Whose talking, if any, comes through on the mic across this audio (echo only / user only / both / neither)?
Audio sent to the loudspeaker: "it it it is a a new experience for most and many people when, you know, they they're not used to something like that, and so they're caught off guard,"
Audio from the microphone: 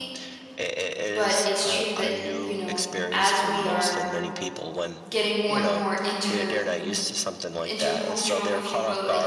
both